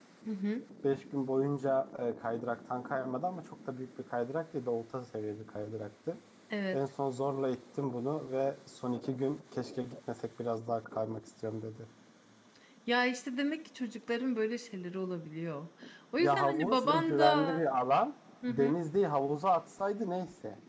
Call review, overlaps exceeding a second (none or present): present